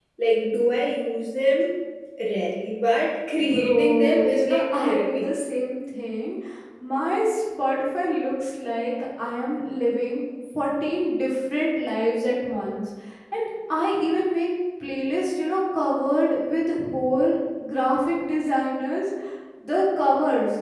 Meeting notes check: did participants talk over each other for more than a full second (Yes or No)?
Yes